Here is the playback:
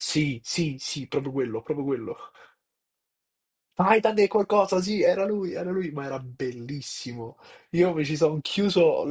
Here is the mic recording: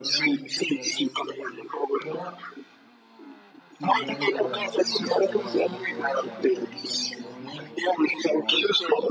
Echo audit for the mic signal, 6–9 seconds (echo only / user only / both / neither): both